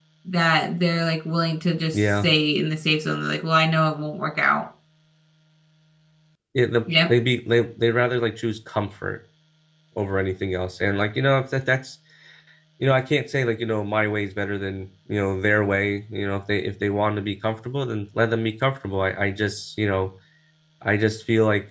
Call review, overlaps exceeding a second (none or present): none